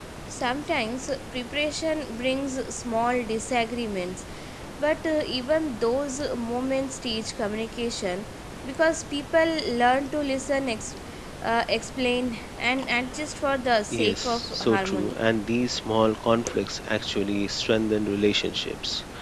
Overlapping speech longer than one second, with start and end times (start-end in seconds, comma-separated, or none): 13.9-15.2